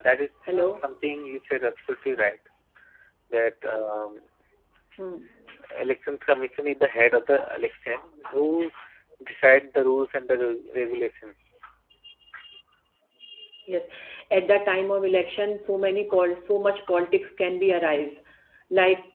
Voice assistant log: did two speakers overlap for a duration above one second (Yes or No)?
No